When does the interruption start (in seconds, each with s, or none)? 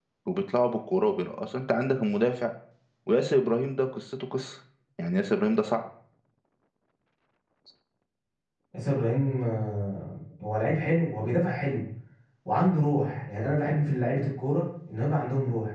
none